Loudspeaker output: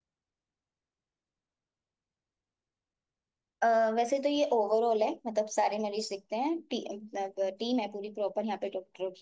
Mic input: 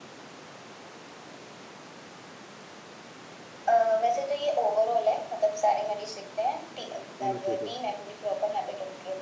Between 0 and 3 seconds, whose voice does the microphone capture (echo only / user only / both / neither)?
neither